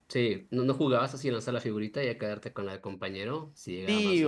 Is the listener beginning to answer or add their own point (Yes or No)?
Yes